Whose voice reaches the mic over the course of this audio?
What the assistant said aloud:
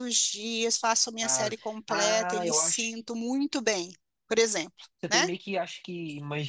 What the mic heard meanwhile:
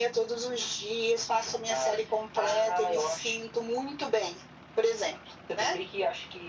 echo only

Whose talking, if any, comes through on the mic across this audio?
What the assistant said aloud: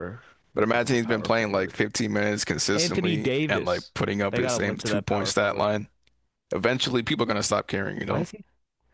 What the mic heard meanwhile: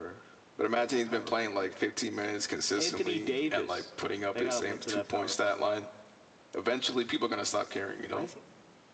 echo only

